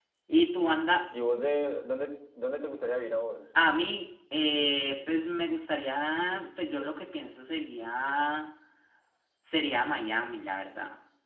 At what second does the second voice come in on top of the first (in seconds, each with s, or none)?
none